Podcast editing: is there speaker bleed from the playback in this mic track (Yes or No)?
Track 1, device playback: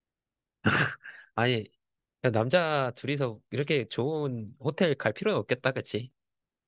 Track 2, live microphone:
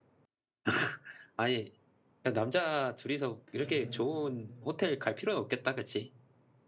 Yes